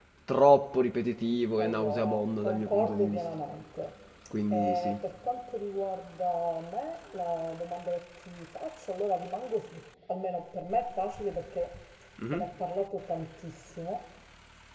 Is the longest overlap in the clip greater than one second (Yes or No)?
Yes